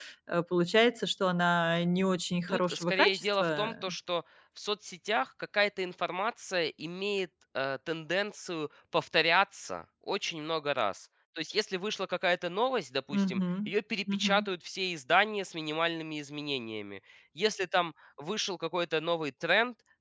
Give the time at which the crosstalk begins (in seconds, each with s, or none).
2.5 s